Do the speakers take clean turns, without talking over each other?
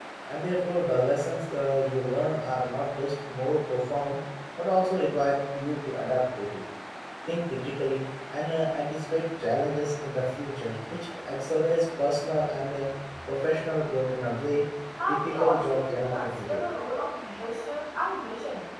No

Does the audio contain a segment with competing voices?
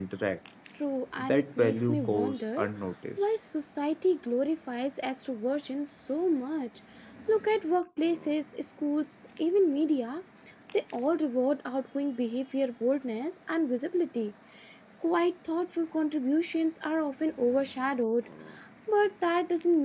Yes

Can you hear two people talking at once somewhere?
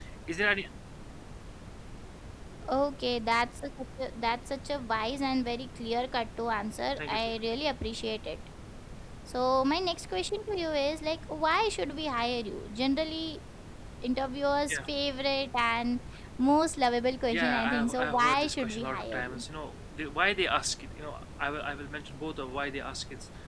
Yes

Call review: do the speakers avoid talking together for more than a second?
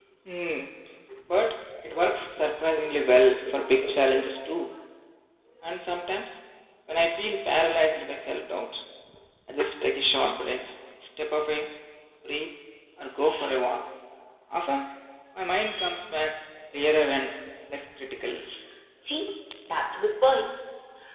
Yes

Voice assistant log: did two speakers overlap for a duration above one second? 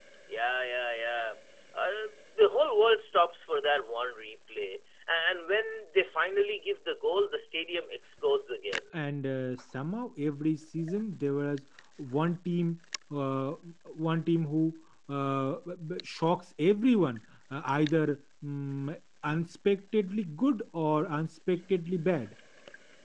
No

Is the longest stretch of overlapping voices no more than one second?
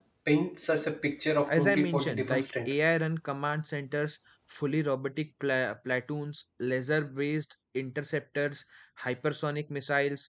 No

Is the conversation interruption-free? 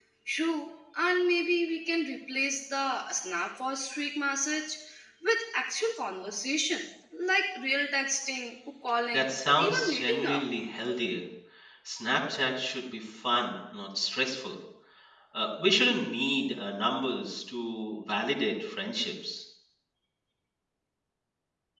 No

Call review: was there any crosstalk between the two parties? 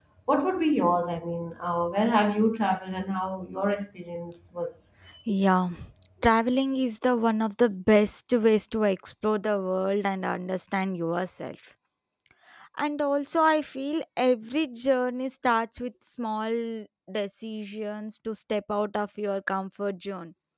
No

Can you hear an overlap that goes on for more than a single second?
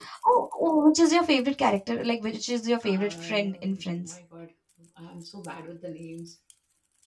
Yes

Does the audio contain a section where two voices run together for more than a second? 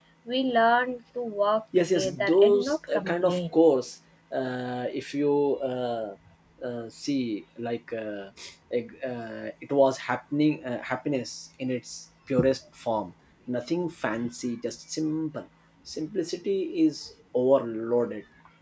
Yes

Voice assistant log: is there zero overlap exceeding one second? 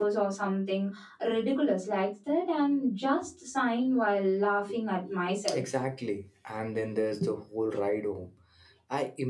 Yes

